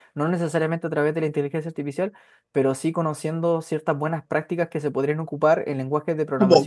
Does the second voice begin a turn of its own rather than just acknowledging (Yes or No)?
Yes